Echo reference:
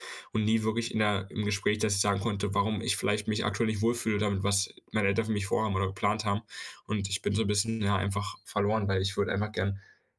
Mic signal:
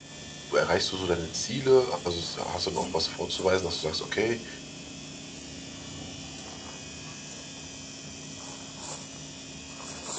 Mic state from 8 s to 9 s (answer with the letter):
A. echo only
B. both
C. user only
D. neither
D